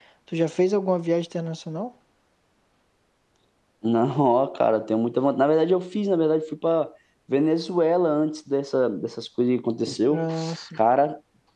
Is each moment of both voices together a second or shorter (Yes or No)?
Yes